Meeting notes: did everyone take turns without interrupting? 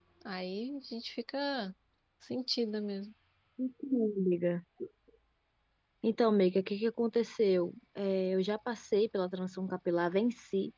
Yes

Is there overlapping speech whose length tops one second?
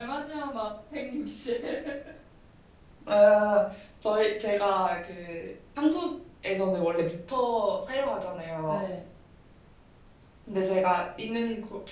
No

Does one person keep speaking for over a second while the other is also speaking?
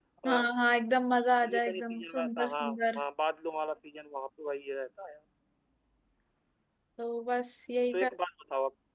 Yes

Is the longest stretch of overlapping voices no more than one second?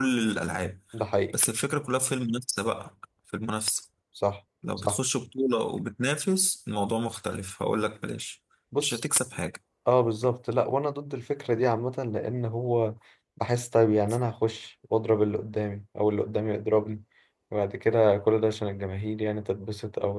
Yes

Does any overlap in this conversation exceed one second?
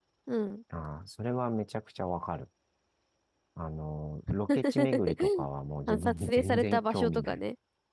Yes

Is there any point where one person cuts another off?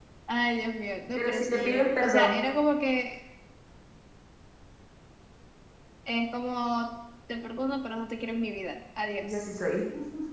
Yes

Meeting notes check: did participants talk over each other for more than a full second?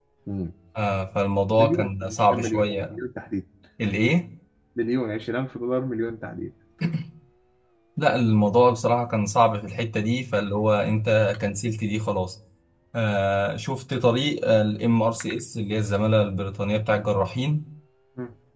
Yes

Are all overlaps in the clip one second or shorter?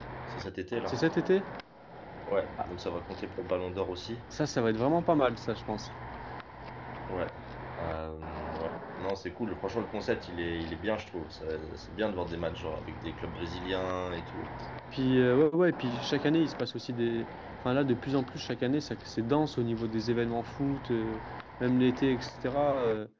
Yes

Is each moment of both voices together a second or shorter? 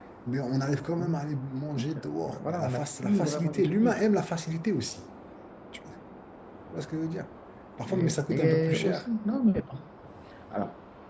No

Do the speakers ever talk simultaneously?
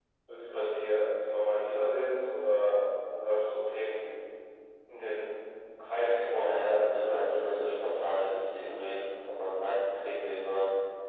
Yes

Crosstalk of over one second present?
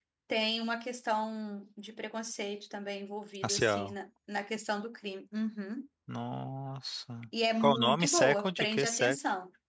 Yes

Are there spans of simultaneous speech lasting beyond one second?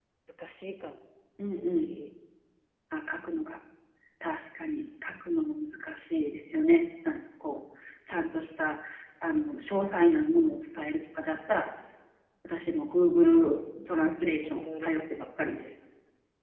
Yes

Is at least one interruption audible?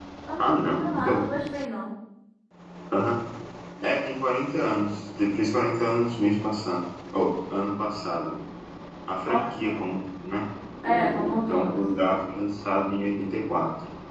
Yes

